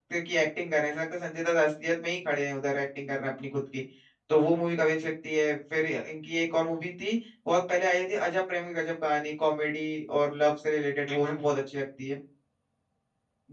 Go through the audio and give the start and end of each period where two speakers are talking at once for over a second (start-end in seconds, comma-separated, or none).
none